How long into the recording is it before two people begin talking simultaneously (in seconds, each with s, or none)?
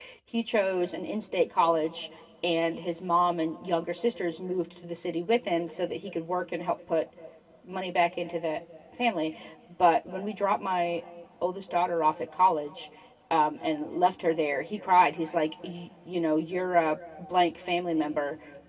none